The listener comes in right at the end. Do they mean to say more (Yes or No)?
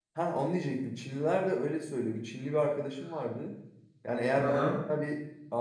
No